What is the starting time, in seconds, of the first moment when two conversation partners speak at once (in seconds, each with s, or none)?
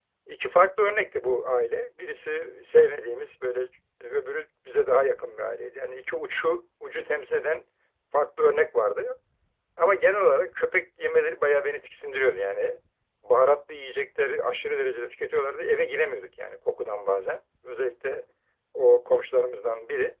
none